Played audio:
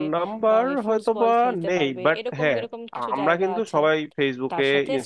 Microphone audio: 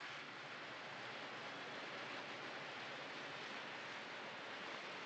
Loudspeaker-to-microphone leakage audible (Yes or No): No